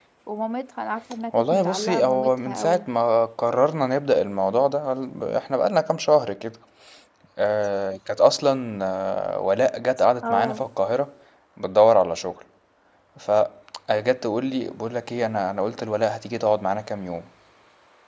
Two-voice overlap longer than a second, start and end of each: 1.3-2.9

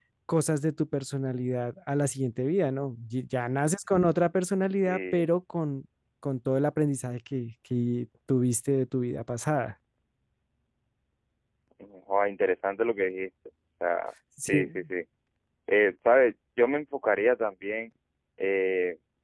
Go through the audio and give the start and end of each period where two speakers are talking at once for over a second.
none

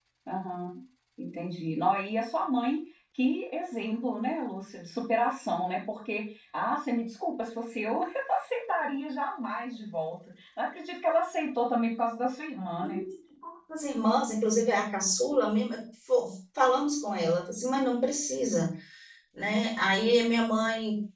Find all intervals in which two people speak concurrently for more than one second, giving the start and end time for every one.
none

